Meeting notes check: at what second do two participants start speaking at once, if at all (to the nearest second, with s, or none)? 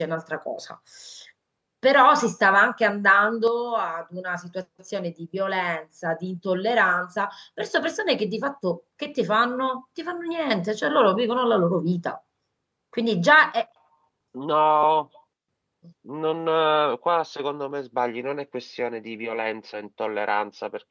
none